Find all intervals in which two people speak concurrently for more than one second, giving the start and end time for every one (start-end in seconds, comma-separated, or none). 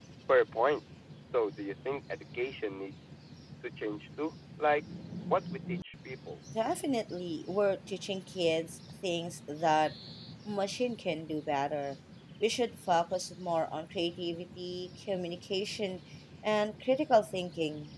none